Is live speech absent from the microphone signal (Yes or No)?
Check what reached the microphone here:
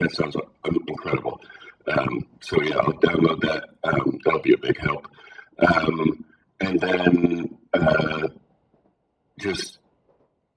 Yes